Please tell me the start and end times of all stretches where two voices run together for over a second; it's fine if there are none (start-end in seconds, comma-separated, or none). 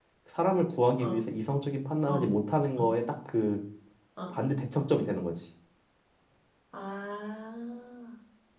none